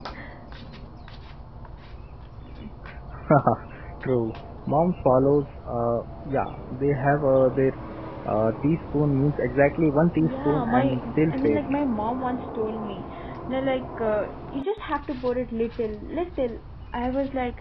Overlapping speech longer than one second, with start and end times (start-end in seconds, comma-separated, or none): 10.2-11.8